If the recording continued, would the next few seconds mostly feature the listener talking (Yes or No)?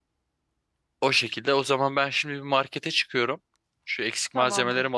No